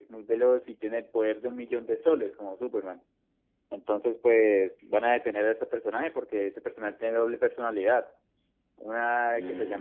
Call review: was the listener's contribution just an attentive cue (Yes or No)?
Yes